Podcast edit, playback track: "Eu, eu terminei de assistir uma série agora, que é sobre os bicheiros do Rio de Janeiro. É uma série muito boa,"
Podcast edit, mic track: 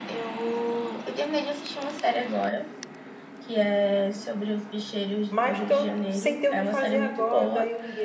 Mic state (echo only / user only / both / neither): both